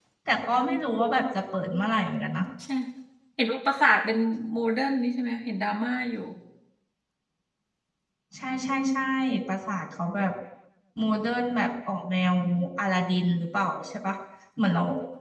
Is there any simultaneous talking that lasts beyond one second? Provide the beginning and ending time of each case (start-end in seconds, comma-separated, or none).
none